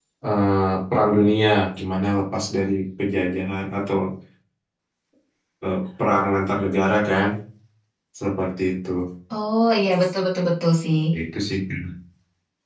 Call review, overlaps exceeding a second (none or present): none